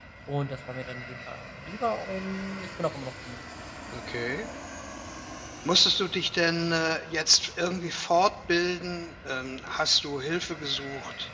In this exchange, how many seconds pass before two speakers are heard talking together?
none

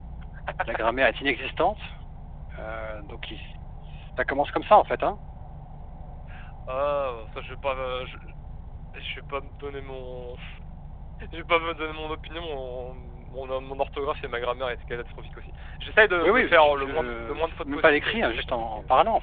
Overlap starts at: 16.2 s

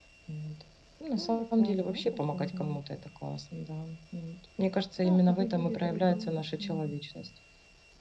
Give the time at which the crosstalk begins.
1.1 s

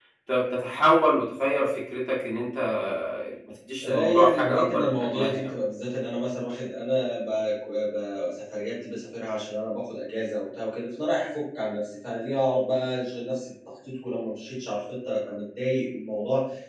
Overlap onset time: 3.8 s

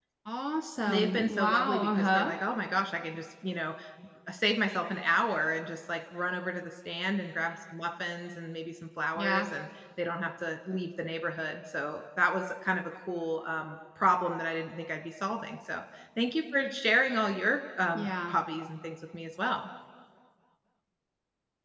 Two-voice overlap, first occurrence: 0.9 s

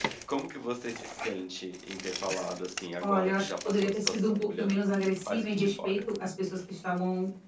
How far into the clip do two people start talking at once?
3.0 s

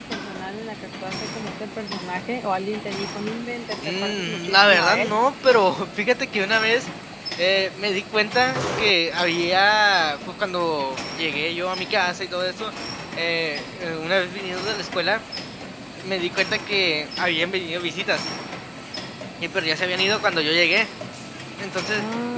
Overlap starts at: 3.8 s

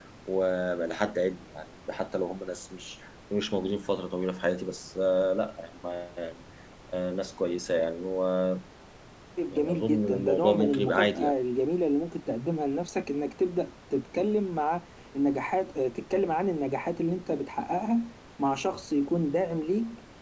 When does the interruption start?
9.5 s

